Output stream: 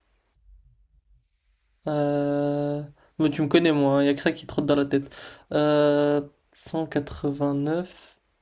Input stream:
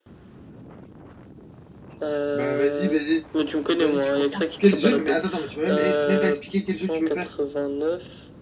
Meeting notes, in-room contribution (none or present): present